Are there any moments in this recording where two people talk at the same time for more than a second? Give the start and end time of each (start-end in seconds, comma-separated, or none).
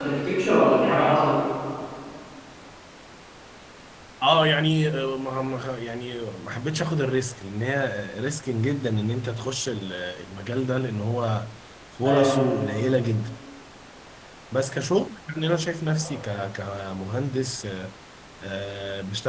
none